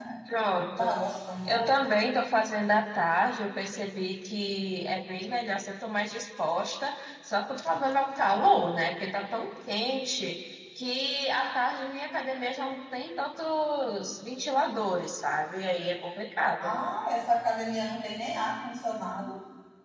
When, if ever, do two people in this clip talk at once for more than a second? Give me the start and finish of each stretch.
none

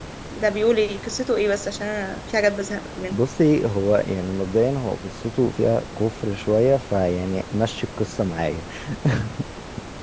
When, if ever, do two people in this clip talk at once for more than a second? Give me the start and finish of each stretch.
none

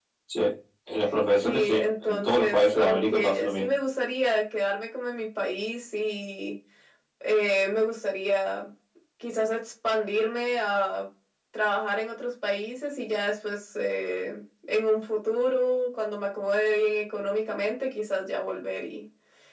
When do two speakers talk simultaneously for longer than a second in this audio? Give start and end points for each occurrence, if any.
1.4-3.7

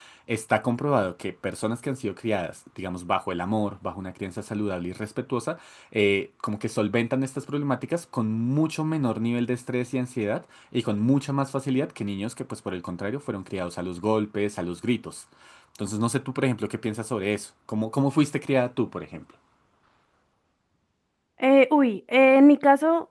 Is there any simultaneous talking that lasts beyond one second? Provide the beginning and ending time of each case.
none

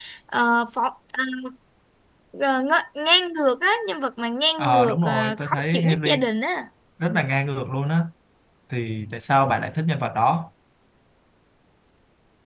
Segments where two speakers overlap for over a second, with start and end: 4.6-6.2

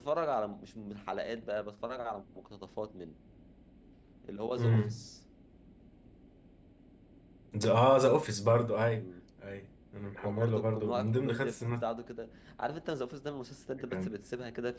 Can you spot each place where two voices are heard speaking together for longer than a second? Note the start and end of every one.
10.2-11.8

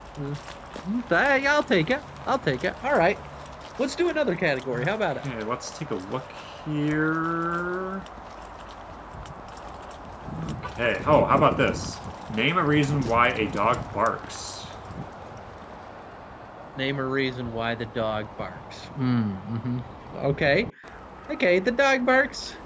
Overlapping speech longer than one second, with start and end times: none

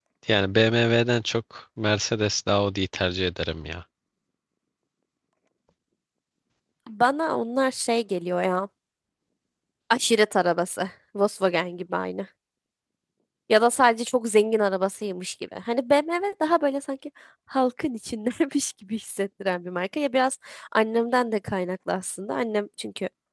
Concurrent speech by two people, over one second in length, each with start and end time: none

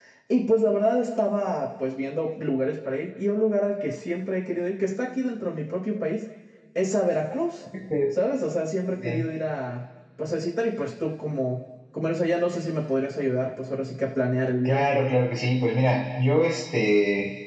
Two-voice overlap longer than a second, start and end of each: none

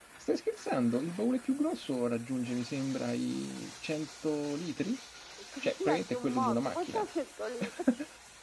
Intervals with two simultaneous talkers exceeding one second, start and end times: 5.6-7.0

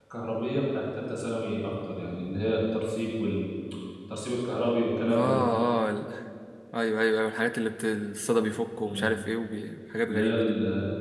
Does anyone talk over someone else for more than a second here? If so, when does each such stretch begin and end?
none

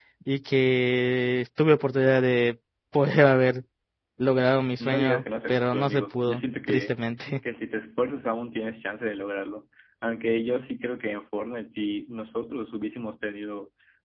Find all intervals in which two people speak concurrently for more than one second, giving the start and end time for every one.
4.8-6.9

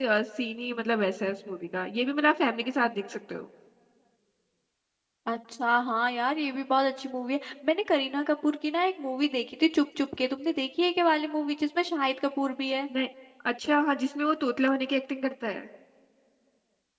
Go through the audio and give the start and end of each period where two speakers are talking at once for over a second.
none

